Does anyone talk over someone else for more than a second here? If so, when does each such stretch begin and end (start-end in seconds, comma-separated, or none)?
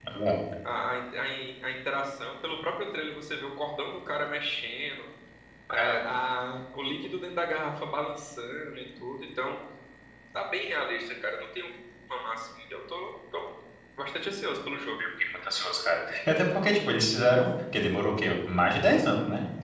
none